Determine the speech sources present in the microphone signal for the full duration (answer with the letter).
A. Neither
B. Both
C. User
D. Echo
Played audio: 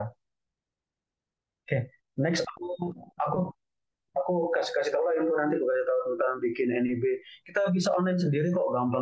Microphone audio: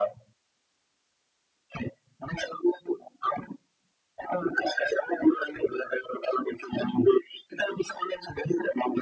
D